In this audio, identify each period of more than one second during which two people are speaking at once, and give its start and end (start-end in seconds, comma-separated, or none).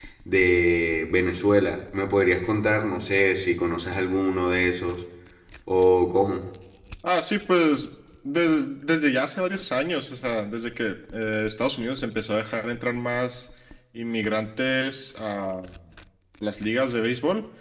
none